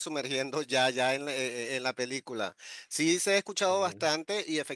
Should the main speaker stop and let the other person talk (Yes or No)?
No